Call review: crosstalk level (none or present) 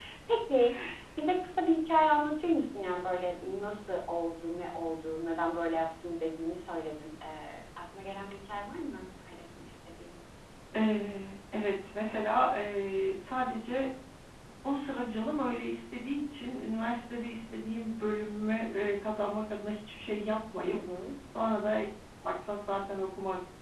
none